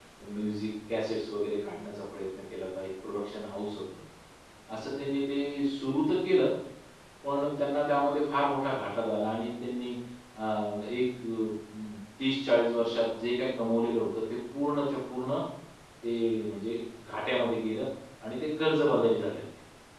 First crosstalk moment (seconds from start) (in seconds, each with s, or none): none